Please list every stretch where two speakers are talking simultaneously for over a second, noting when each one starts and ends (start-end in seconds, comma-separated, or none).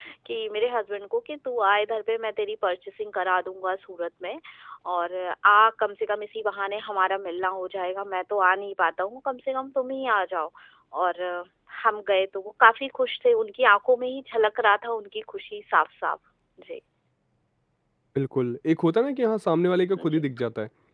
none